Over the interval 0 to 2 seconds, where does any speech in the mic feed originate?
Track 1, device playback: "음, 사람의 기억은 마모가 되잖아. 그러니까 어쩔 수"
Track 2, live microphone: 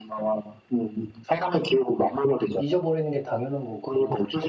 echo only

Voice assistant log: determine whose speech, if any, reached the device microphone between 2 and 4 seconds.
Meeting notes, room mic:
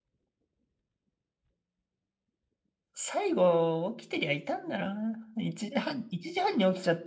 user only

